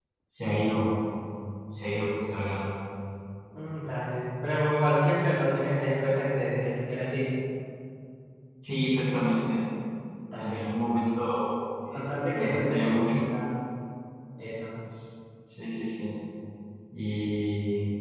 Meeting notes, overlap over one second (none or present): present